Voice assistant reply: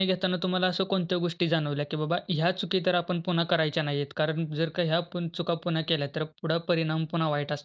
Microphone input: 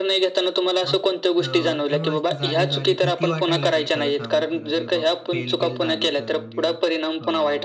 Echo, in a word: present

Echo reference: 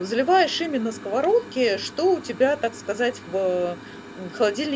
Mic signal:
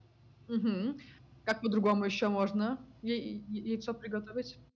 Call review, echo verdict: none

